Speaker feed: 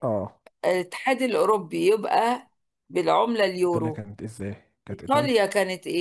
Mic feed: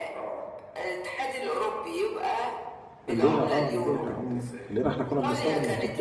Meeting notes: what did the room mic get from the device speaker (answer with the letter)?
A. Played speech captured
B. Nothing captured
A